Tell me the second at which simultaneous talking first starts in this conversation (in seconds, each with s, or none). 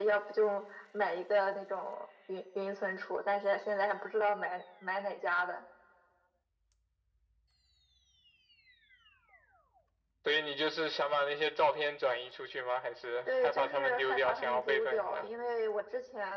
13.2 s